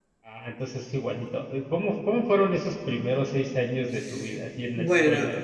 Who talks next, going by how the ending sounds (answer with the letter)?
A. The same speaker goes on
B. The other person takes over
B